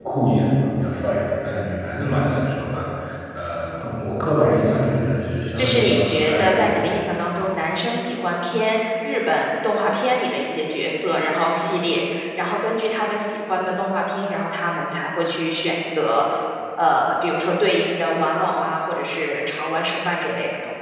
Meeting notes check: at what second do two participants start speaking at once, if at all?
5.6 s

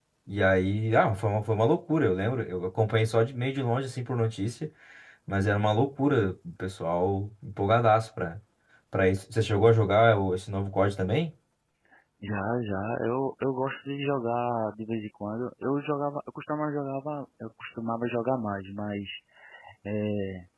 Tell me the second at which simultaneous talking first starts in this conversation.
none

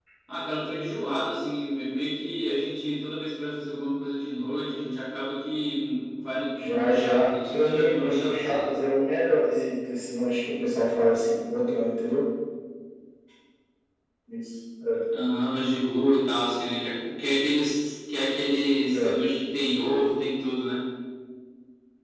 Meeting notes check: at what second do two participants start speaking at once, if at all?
6.6 s

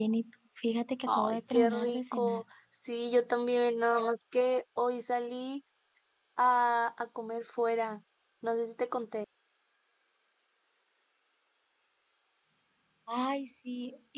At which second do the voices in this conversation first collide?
1.1 s

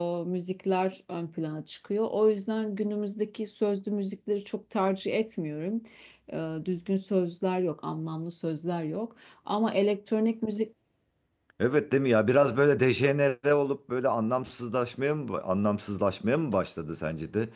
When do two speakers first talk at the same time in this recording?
none

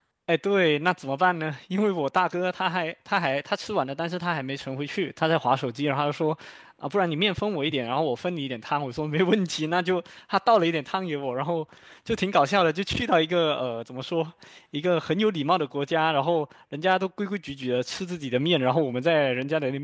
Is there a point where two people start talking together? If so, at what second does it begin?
none

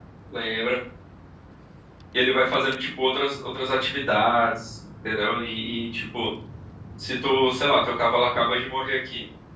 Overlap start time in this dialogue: none

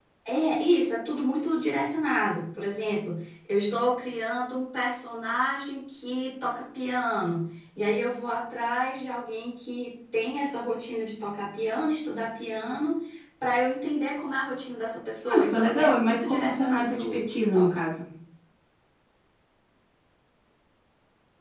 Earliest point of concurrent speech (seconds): 15.3 s

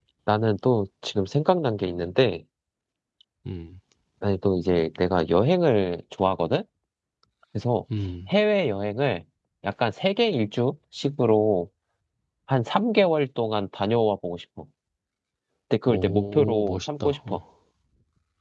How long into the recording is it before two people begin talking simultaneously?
15.8 s

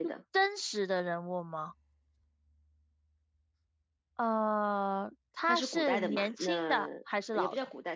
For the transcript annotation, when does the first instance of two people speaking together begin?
5.5 s

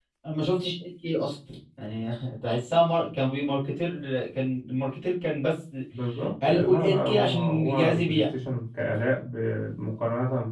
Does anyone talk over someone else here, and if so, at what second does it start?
6.5 s

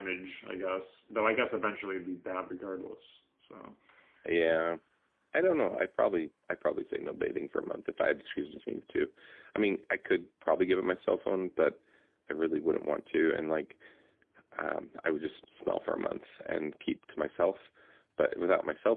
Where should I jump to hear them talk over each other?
none

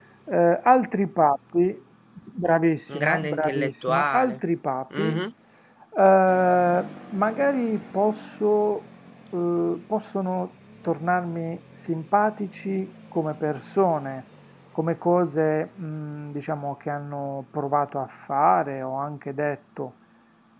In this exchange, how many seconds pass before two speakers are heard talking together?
2.9 s

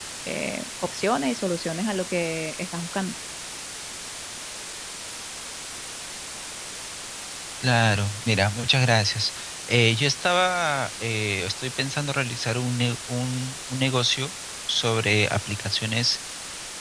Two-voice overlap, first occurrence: none

